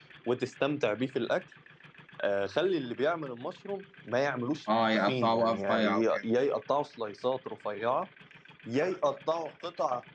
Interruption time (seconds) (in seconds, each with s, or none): 4.7 s